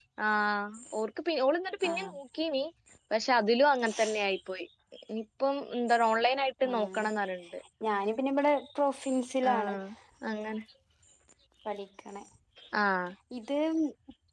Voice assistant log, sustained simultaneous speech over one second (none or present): none